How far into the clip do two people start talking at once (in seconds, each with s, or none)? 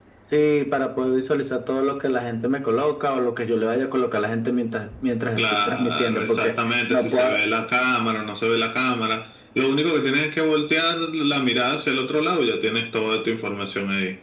5.4 s